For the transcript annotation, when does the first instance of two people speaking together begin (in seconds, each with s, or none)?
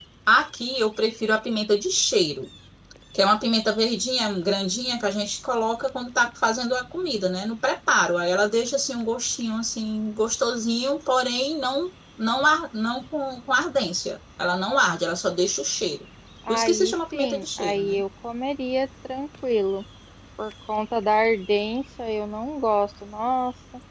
16.5 s